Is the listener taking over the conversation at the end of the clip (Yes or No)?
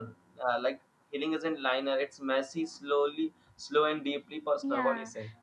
Yes